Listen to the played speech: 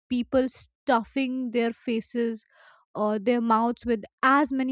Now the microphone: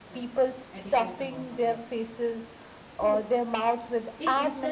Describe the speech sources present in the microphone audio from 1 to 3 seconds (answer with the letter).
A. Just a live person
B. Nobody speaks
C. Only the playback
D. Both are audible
D